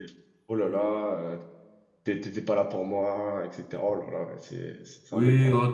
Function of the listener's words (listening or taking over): taking over